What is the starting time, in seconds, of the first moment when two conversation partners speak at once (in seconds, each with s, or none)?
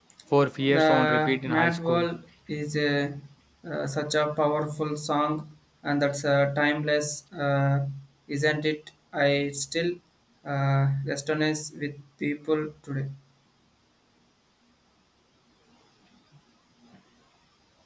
0.7 s